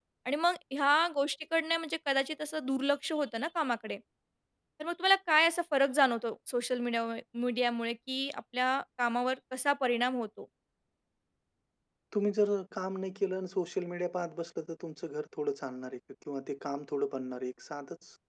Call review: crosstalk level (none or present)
none